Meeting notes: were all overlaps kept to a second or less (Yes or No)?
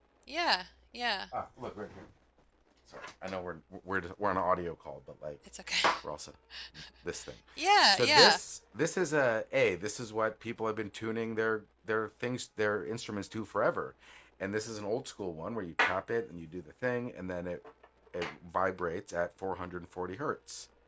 Yes